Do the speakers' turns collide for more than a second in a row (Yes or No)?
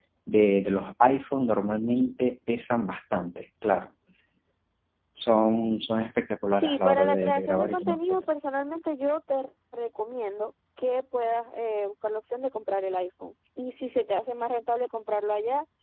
Yes